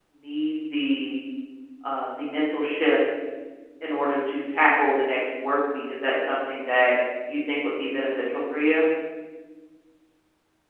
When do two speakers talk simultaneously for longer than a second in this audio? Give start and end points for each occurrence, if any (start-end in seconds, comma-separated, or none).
none